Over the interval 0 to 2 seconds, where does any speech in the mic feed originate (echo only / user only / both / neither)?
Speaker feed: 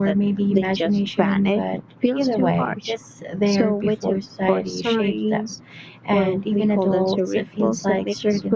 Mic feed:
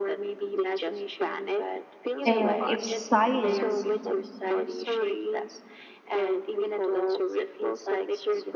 echo only